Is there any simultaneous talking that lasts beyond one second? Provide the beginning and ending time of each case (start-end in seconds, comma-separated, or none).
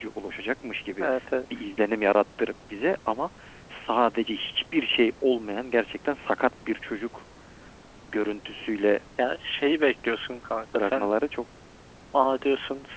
none